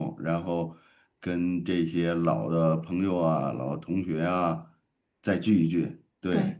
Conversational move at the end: listening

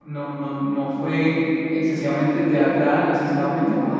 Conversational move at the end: listening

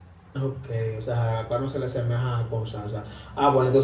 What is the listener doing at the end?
listening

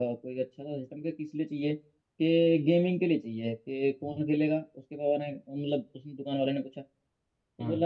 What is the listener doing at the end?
listening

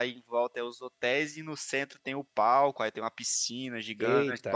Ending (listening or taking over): listening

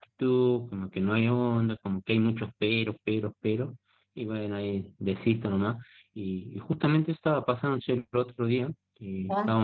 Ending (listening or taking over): listening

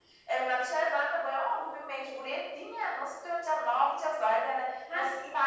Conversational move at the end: listening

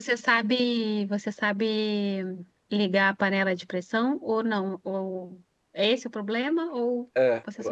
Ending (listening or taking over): taking over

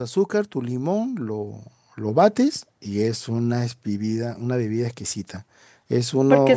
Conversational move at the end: taking over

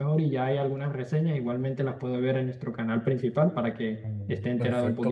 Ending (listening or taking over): taking over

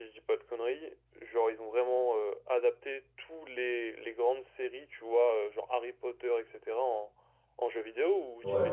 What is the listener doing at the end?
taking over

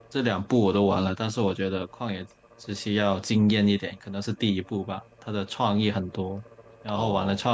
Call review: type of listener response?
listening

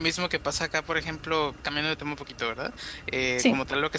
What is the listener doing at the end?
listening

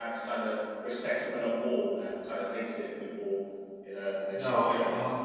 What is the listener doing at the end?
taking over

